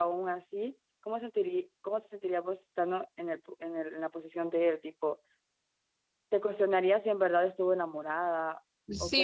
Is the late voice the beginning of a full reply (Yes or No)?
Yes